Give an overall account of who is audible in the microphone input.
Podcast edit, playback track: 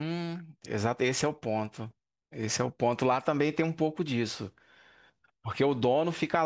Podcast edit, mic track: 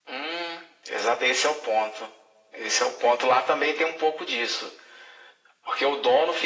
echo only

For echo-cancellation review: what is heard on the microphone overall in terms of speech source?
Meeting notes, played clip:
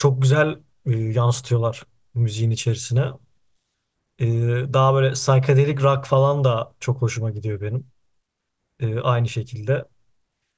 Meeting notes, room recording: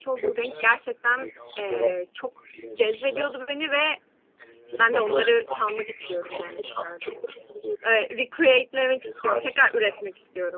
both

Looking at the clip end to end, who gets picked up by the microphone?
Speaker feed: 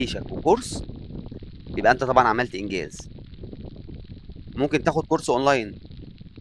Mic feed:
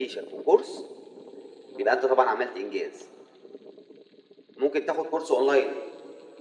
echo only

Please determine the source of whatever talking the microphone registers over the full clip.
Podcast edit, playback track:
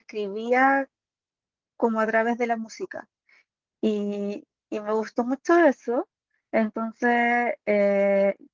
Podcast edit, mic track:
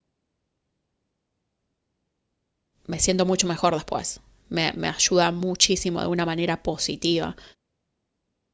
user only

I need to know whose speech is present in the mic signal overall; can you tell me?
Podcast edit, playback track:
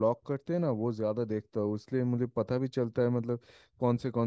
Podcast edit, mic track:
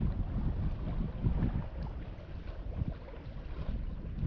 neither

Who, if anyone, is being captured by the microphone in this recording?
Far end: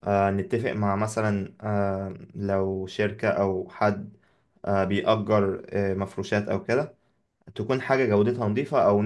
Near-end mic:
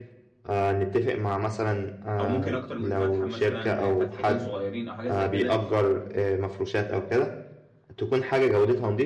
both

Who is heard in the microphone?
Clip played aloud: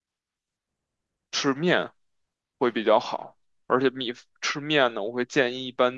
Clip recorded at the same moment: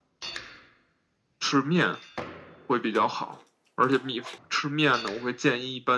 echo only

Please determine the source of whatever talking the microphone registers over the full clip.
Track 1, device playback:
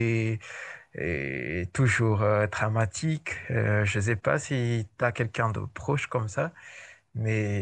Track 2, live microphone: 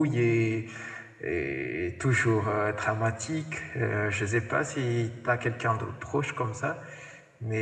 echo only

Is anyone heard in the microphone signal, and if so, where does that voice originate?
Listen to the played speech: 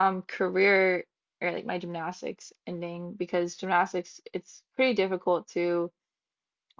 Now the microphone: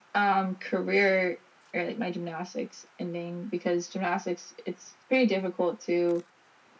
echo only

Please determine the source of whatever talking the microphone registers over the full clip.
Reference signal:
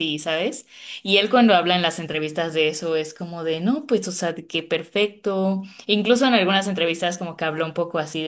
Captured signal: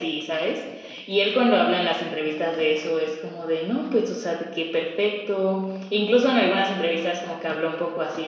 echo only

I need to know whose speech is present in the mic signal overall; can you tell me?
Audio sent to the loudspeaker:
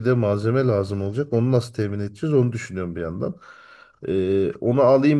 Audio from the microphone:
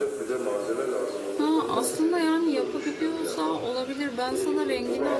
both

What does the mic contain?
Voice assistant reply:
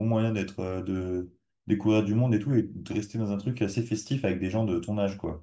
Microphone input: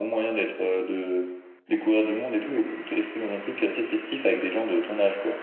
echo only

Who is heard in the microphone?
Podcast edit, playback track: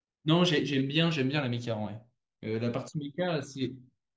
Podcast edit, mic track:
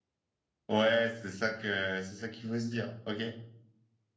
user only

